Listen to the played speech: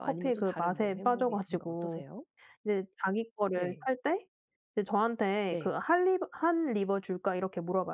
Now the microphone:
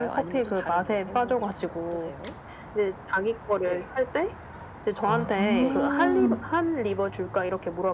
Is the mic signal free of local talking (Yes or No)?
No